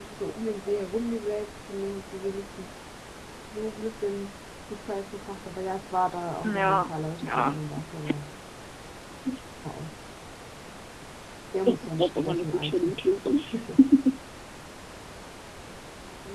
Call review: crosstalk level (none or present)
present